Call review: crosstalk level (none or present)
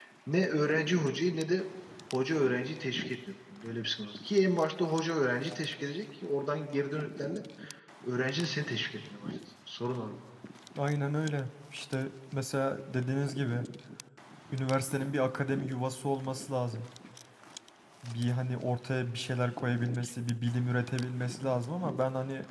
none